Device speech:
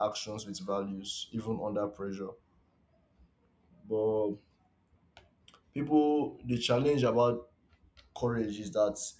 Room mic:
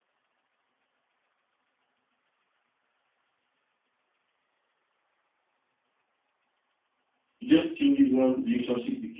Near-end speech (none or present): present